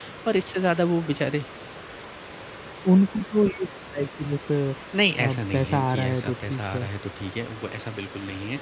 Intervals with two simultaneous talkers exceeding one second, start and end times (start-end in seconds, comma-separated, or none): 5.2-6.9